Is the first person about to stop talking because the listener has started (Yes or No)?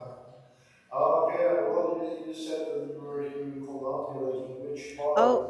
Yes